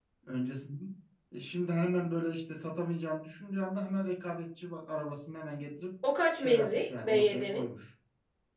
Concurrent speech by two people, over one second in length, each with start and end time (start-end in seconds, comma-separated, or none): 6.4-7.7